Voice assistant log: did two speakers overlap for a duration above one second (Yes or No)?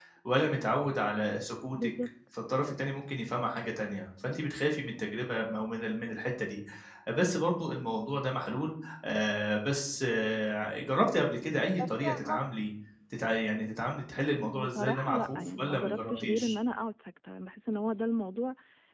Yes